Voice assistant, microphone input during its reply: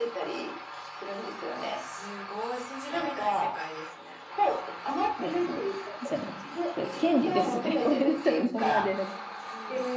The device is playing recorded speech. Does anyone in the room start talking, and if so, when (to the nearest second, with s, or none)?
5 s